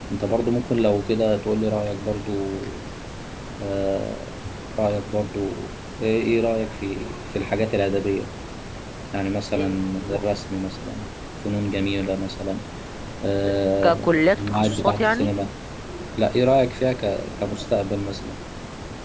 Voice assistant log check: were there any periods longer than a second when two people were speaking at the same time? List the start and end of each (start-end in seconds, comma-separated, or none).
13.8-15.3